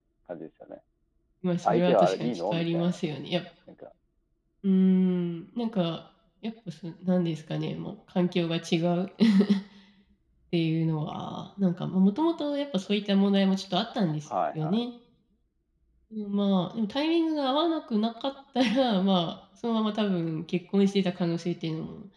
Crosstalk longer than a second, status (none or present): present